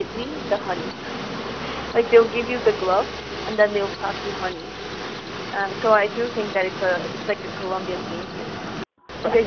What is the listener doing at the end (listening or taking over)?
taking over